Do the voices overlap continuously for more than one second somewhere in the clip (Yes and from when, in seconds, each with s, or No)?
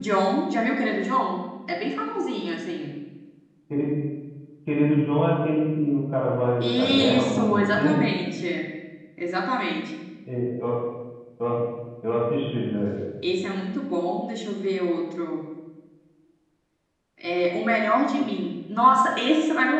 Yes, from 6.6 s